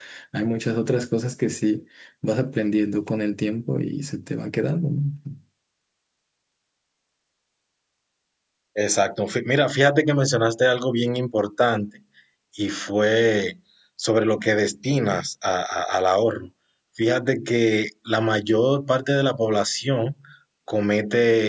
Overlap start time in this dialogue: none

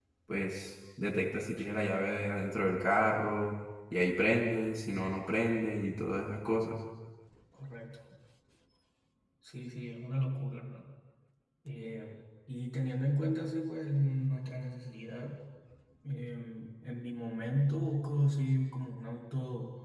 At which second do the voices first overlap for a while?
none

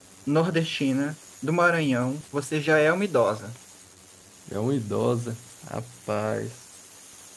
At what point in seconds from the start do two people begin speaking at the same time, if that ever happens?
none

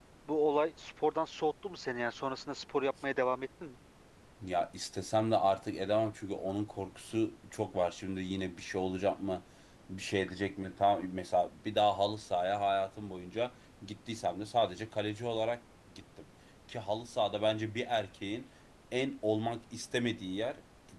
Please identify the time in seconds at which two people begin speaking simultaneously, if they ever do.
none

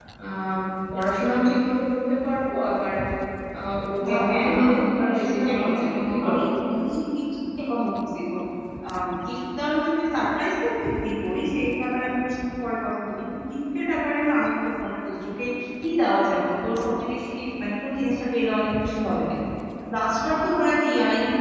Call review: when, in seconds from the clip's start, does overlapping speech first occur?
4.0 s

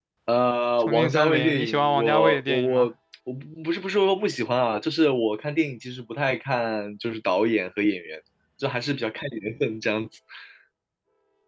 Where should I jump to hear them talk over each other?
0.8 s

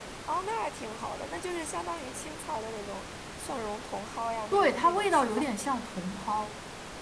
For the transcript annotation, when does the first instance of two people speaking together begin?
4.5 s

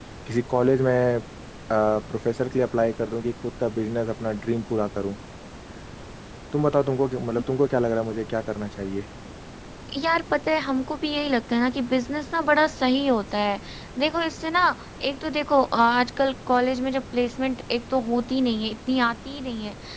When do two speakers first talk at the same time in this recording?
none

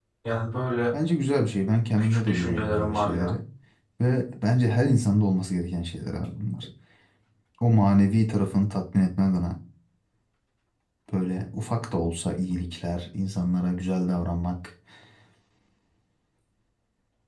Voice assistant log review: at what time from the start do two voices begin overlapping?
2.0 s

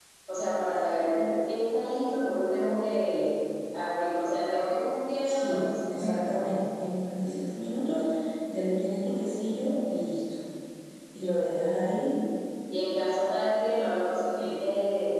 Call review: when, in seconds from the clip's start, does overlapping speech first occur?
5.2 s

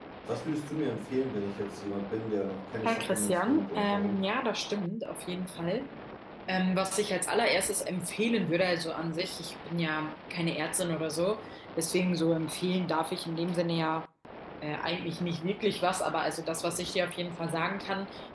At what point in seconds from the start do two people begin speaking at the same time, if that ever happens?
2.8 s

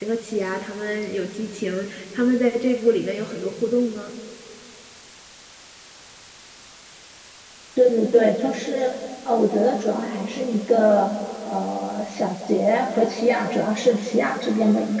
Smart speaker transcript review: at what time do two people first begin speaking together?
none

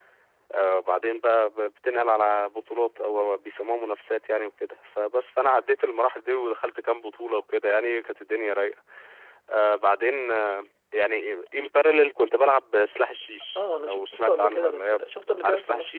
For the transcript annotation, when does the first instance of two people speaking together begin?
13.6 s

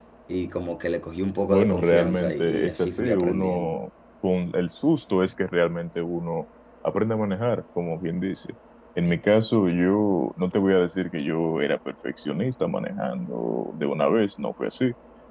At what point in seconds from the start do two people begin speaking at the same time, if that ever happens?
1.5 s

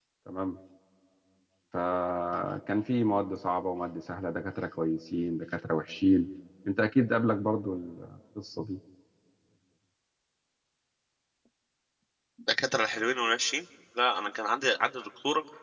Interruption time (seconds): none

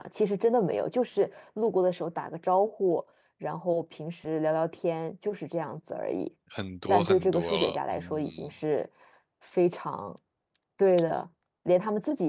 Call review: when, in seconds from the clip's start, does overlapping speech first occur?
6.9 s

